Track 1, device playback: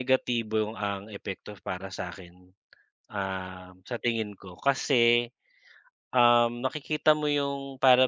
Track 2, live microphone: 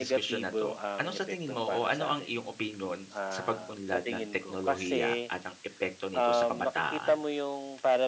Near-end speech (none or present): present